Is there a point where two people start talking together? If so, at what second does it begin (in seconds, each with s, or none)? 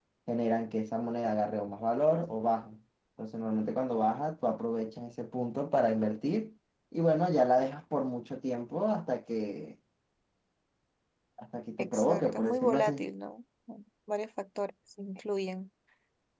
11.8 s